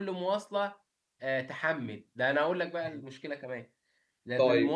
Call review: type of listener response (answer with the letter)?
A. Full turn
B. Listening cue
B